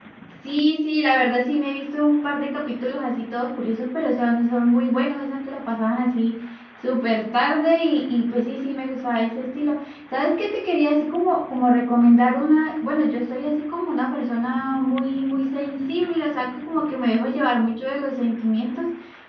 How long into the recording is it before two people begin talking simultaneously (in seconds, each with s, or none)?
none